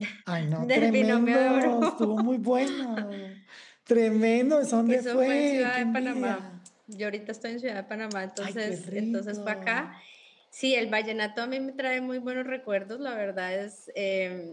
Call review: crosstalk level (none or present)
present